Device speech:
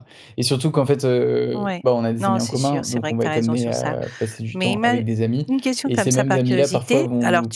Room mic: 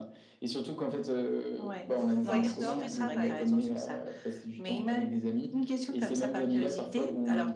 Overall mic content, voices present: both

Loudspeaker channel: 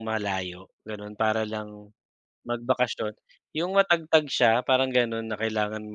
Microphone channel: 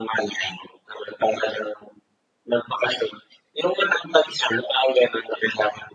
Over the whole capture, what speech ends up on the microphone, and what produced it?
echo only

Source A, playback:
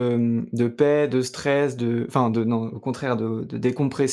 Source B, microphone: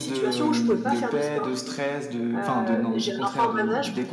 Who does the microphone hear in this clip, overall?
both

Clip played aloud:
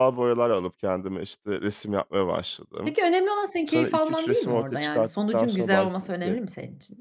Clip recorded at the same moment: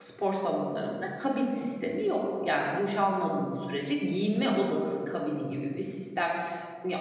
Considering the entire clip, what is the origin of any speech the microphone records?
user only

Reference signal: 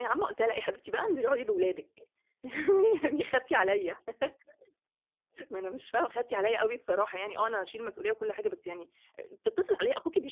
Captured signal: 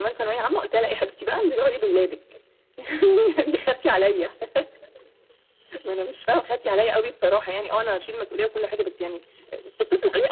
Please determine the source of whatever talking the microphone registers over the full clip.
echo only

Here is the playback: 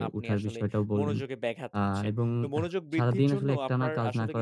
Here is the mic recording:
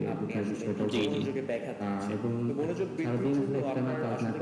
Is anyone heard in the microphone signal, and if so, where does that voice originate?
both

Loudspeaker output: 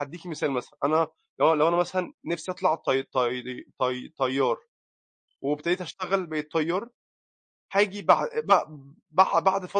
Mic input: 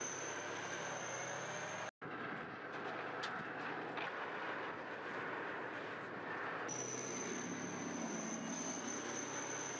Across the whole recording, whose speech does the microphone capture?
neither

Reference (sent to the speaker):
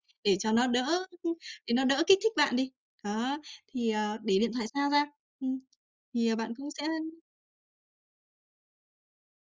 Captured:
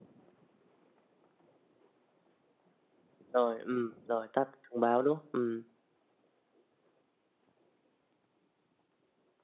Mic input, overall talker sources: user only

